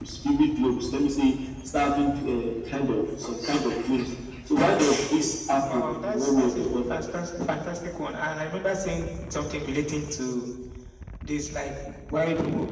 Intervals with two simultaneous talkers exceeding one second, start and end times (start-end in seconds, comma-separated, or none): 5.7-7.0